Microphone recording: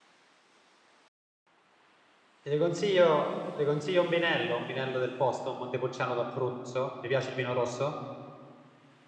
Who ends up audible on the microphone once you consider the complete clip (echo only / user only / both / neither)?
user only